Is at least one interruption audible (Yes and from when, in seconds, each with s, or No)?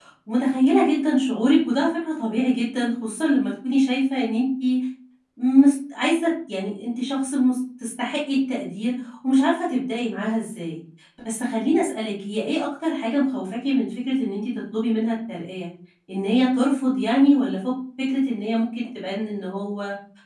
No